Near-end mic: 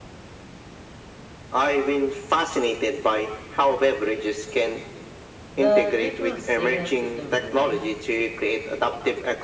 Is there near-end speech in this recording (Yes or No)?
Yes